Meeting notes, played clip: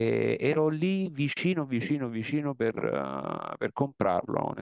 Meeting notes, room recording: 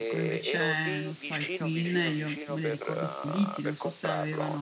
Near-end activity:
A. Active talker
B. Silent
A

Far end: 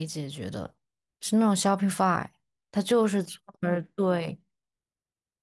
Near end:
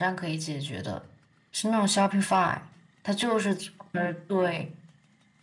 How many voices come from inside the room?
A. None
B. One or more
A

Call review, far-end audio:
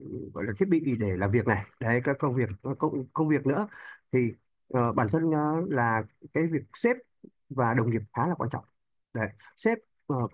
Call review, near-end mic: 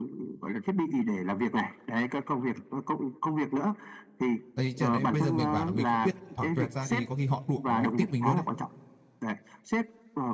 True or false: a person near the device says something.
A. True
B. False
A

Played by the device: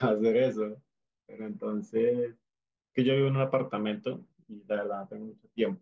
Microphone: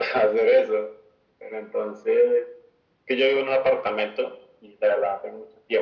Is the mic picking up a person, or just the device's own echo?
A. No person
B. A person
A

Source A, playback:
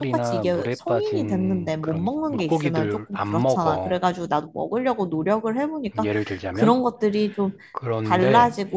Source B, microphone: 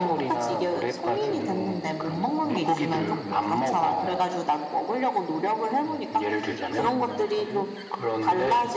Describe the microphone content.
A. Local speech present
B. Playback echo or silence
A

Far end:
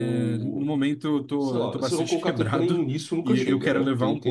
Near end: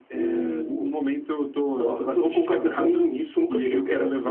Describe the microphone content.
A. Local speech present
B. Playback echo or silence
B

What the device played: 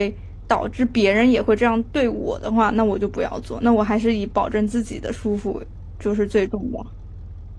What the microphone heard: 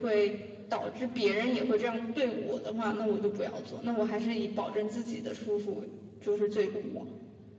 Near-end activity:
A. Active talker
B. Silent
B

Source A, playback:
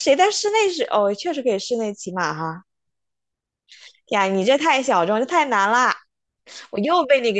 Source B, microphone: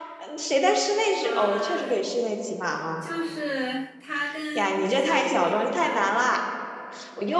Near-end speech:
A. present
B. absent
A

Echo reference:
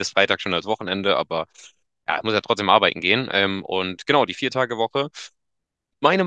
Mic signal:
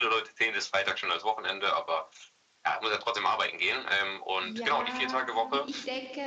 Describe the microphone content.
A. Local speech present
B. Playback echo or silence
A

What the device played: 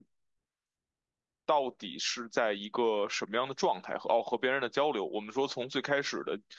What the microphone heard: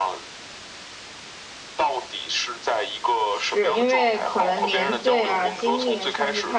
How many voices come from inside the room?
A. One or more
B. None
A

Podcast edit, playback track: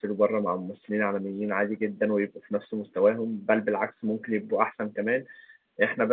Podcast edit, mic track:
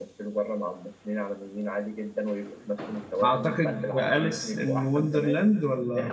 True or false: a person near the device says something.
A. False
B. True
B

